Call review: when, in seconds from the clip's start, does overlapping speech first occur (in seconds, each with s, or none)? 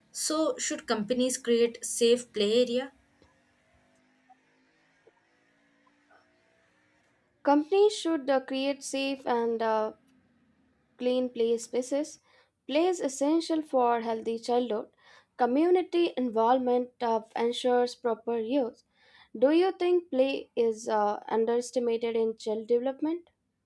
none